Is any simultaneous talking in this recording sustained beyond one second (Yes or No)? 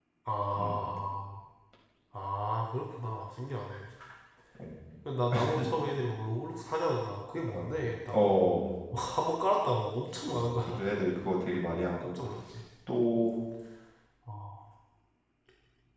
No